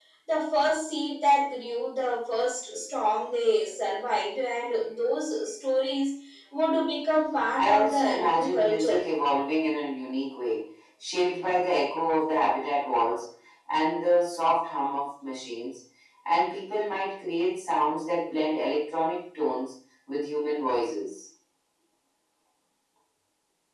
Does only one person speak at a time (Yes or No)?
No